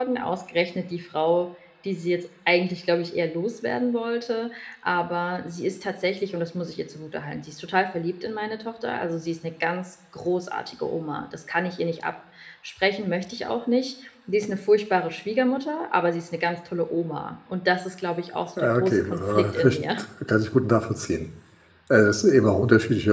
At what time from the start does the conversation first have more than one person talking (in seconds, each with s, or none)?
18.6 s